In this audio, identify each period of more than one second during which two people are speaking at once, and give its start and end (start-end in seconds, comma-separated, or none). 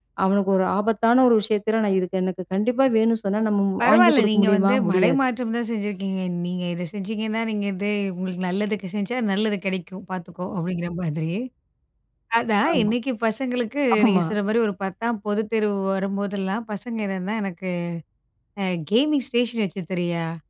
3.8-5.2